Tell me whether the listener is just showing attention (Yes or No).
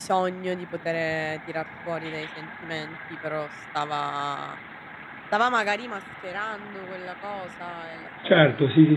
No